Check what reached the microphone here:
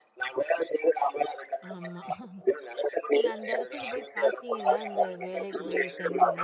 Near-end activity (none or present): present